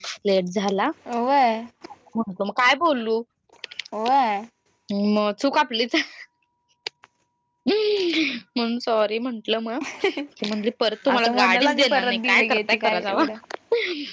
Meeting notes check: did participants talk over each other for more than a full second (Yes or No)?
Yes